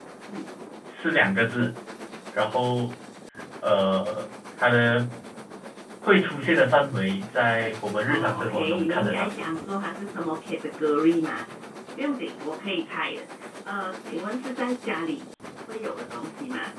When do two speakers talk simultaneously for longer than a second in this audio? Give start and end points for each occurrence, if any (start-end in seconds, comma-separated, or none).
8.1-9.3